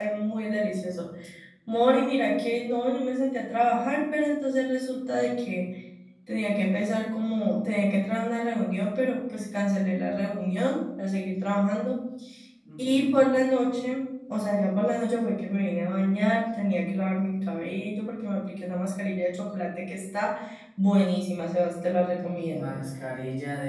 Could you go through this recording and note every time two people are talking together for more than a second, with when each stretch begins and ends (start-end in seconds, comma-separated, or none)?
none